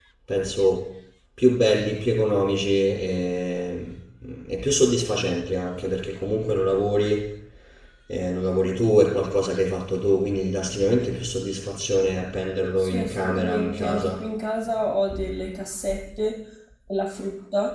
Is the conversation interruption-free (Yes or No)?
No